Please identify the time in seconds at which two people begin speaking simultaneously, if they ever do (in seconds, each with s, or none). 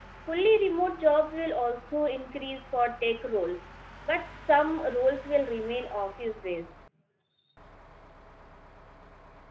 none